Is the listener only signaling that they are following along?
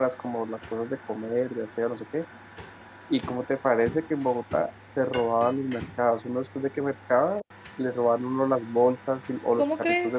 Yes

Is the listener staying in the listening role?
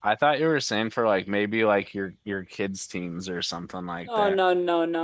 No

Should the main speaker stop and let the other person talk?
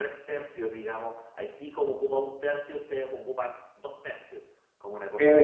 Yes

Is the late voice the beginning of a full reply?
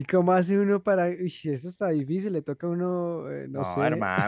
Yes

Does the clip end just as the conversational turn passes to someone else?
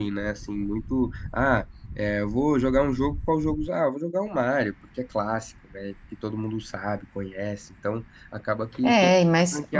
Yes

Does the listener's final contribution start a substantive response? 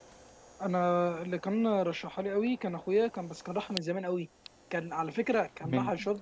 No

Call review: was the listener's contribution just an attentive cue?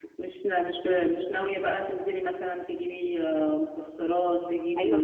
No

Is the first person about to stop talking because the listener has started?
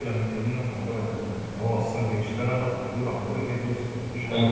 Yes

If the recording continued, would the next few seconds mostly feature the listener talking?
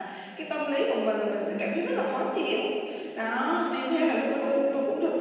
No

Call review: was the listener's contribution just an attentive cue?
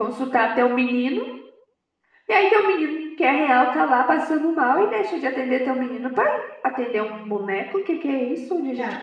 No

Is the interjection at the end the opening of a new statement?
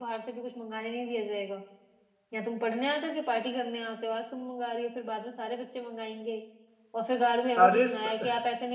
No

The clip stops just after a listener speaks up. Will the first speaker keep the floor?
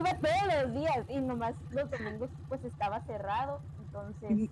No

